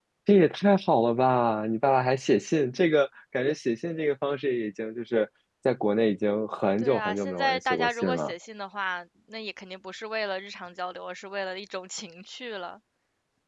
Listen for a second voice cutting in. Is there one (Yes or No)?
Yes